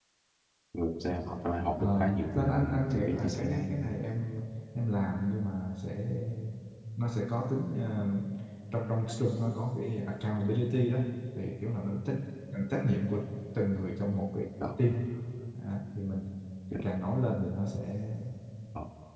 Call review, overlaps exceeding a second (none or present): present